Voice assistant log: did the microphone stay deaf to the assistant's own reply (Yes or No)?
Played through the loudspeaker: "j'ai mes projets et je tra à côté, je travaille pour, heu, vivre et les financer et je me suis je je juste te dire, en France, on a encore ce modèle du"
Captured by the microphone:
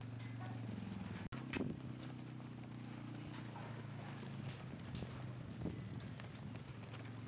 Yes